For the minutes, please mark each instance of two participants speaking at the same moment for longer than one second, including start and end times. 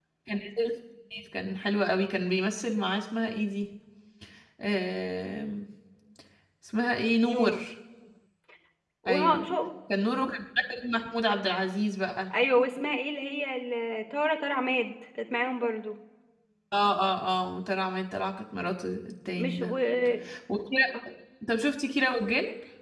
none

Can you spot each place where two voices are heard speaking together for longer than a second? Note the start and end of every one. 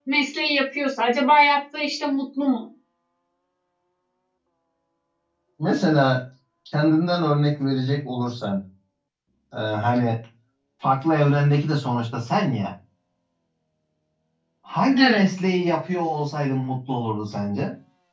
none

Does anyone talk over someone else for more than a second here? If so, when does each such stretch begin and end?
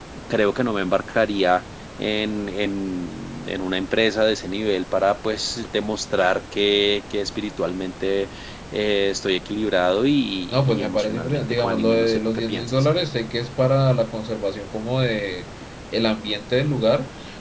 10.7-12.7

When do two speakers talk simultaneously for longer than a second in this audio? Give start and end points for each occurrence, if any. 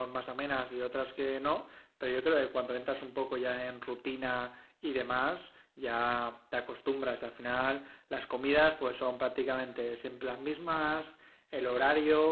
none

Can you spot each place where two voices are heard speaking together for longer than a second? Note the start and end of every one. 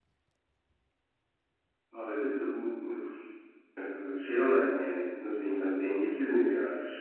none

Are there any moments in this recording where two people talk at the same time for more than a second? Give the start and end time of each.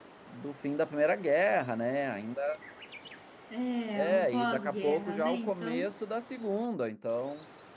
4.0-5.9

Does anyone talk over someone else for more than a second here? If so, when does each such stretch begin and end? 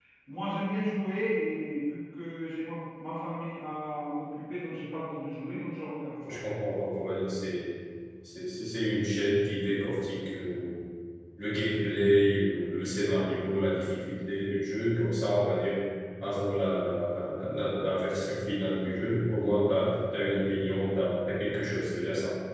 none

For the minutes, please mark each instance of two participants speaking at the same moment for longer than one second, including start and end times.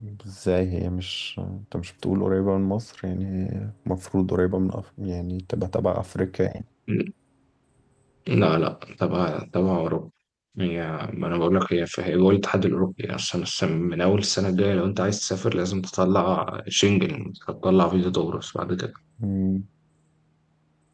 none

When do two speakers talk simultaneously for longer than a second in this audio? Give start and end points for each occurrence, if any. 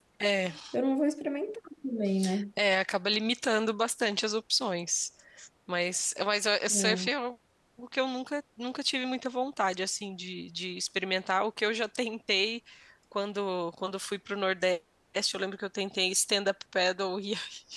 none

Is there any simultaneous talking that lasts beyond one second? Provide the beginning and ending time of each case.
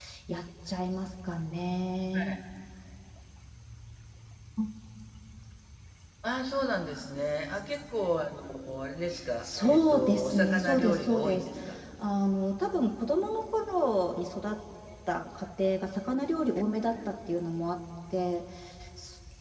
9.4-11.5

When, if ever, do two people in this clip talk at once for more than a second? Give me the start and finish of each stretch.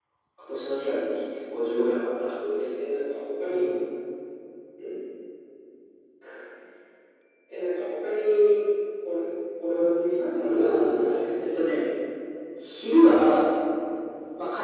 10.3-11.8

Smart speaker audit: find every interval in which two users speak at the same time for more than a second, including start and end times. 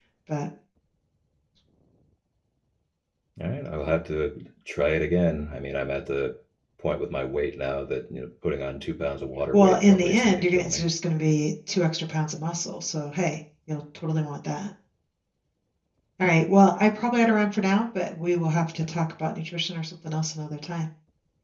9.5-10.8

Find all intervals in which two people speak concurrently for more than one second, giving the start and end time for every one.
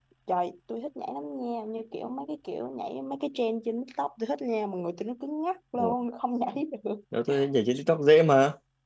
none

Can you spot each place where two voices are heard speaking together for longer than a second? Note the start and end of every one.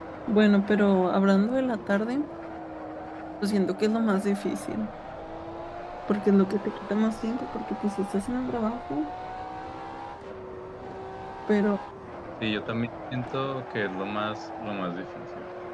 none

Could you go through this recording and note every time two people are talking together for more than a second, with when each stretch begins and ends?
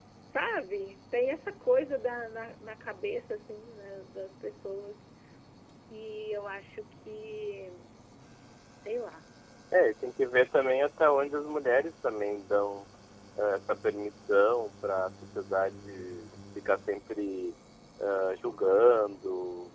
none

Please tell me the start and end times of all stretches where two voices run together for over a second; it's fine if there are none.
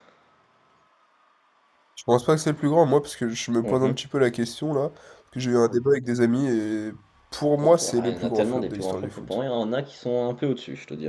7.6-9.3

